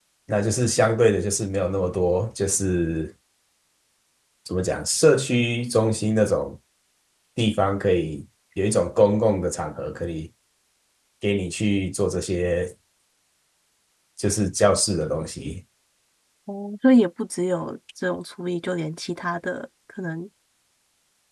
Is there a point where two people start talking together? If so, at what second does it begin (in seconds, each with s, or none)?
none